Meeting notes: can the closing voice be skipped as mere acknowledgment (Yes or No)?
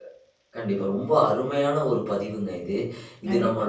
Yes